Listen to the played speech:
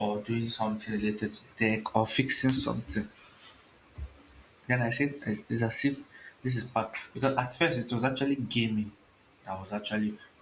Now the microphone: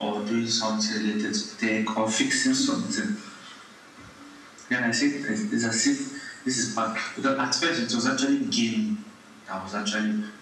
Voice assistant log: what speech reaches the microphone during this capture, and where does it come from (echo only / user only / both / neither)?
echo only